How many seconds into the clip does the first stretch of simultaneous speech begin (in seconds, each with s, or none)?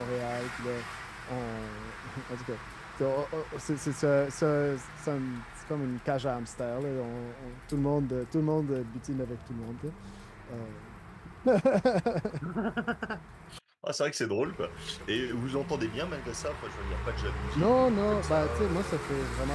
17.6 s